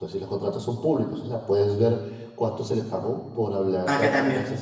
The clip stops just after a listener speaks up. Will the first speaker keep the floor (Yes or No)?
Yes